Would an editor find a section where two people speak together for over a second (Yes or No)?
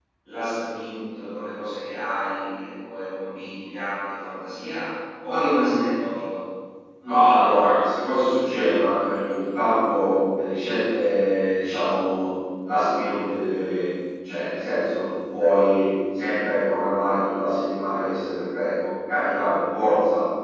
No